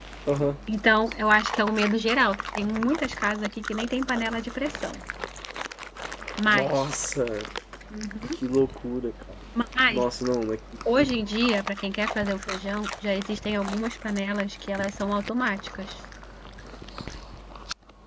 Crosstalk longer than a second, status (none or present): none